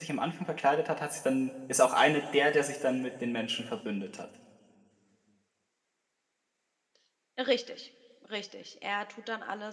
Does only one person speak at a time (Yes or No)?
Yes